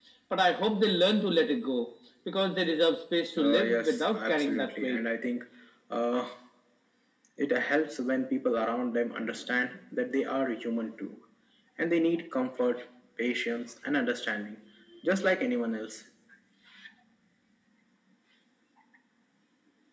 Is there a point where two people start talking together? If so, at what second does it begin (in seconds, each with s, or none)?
3.4 s